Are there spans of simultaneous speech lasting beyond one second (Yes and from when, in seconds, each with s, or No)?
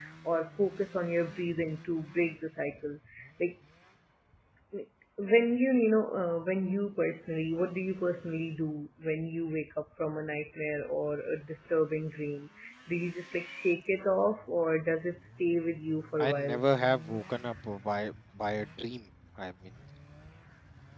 No